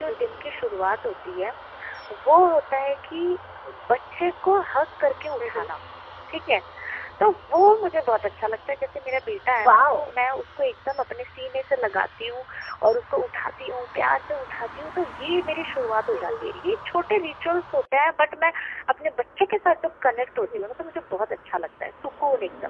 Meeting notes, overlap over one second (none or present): none